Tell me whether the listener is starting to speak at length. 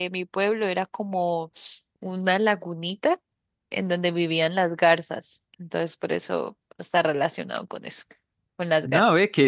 Yes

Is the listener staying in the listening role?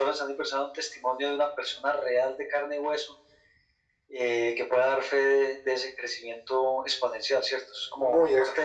No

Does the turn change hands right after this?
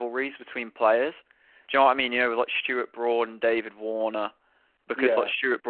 No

